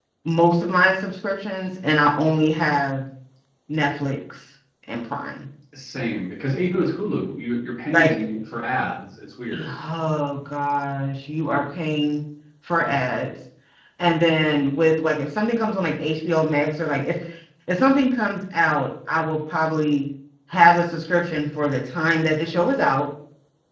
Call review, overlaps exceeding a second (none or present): none